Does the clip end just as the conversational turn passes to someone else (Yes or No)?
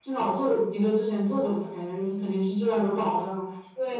Yes